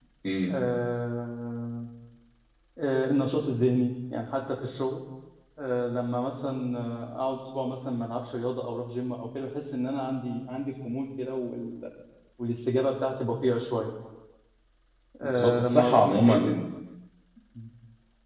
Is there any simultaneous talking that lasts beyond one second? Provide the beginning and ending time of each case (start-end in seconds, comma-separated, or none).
15.2-16.5